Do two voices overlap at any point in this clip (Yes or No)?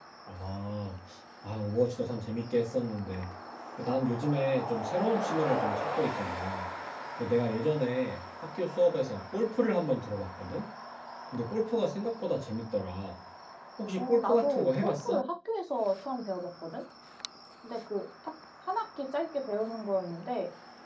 Yes